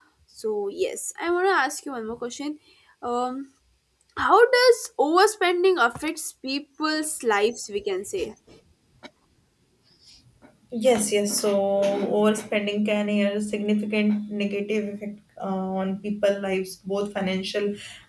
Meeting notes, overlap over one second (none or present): none